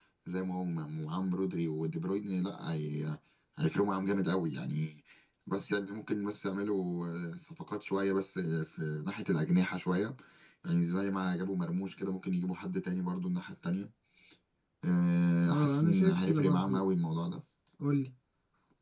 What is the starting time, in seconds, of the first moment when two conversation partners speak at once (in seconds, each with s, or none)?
15.5 s